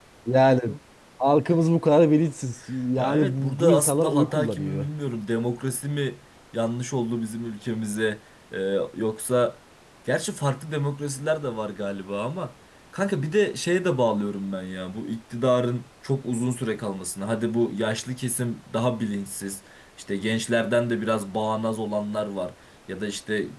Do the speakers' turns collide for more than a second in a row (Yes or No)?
Yes